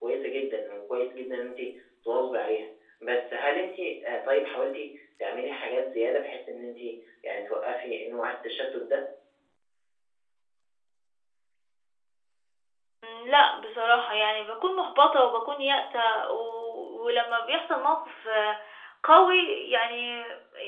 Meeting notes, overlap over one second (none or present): none